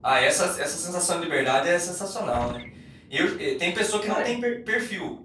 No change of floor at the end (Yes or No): Yes